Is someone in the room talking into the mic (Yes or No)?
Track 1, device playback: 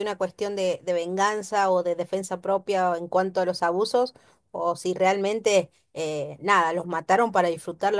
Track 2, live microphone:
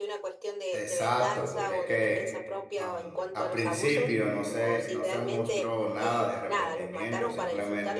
Yes